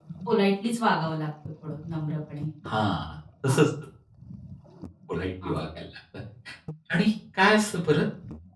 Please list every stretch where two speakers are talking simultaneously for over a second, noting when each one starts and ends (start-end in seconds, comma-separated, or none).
none